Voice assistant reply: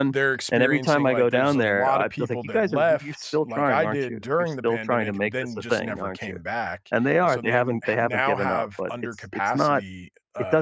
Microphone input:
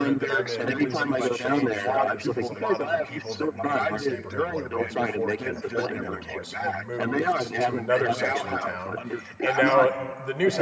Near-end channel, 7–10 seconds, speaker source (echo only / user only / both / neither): both